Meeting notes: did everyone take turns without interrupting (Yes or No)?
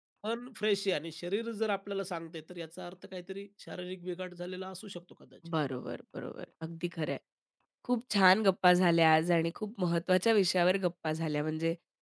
Yes